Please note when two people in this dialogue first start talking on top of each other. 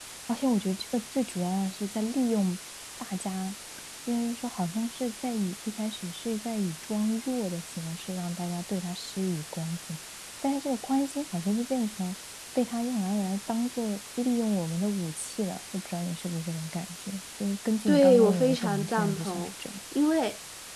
17.9 s

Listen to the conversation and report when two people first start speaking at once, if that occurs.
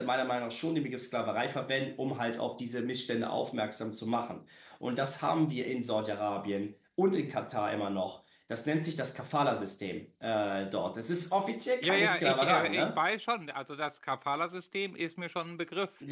11.8 s

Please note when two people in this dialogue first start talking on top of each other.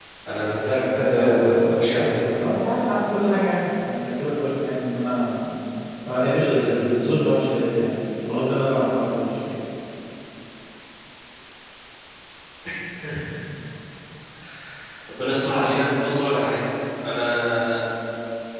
1.0 s

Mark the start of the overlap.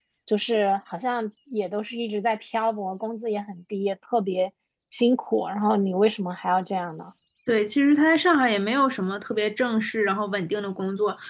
none

